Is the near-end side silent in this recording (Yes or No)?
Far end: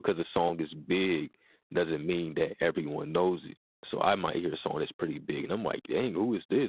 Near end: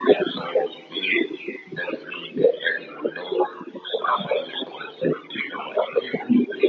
Yes